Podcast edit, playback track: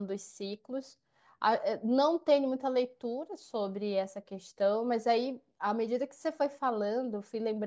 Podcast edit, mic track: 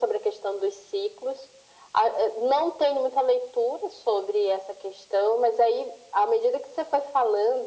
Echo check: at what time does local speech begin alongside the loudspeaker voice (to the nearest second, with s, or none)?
none